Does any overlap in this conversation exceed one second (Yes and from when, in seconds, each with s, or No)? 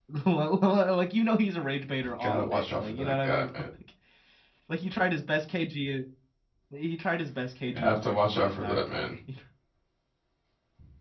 Yes, from 2.2 s